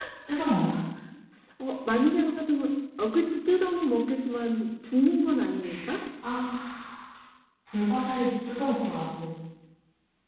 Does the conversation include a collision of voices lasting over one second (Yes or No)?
No